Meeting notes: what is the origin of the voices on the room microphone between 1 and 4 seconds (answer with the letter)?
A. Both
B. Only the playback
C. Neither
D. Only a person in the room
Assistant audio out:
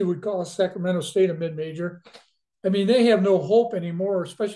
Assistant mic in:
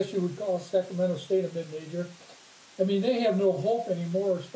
B